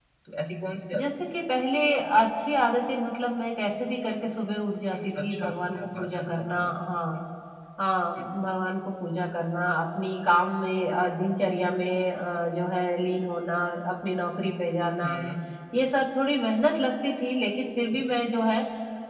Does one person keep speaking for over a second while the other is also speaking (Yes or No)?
Yes